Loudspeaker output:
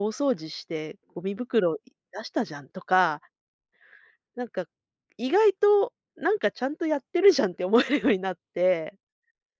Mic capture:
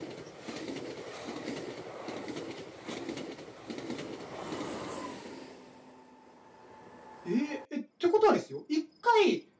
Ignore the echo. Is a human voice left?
Yes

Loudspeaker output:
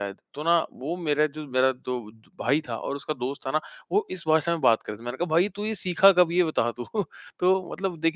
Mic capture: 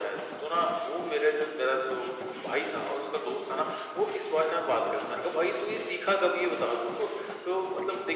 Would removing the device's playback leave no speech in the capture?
Yes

